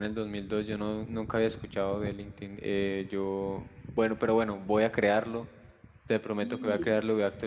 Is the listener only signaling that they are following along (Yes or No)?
Yes